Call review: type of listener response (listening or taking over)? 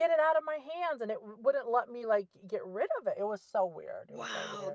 taking over